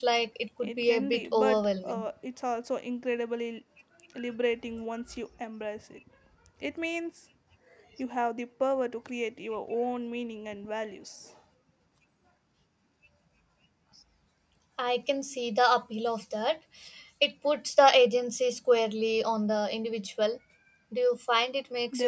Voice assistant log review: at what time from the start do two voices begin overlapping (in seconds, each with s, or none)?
0.6 s